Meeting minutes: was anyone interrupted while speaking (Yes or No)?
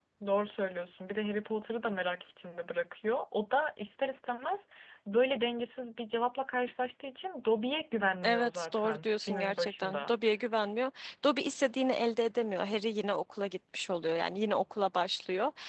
Yes